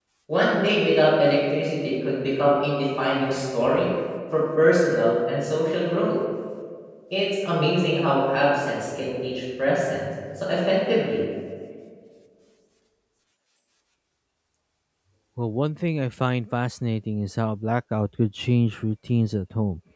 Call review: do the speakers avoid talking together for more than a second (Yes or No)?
Yes